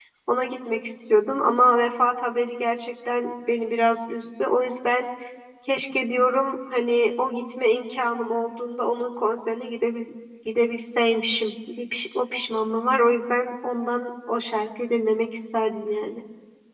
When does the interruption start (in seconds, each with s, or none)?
none